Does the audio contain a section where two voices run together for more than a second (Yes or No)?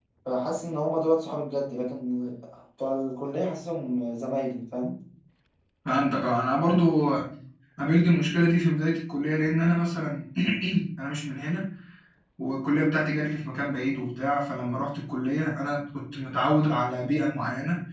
No